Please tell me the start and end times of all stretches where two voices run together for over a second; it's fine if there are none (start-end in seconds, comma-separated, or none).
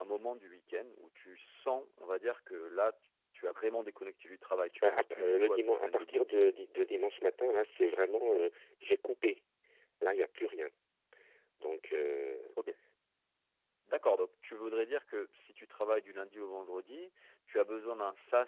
4.8-6.3